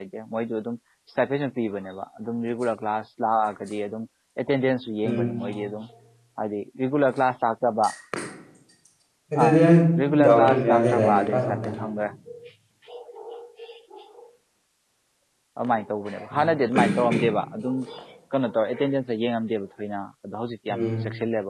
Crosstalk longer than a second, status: present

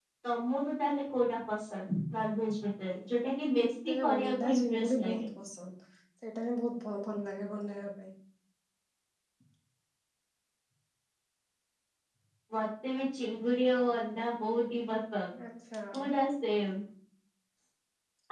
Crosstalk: present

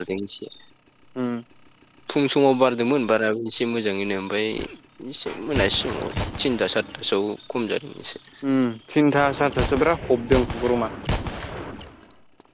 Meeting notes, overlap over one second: none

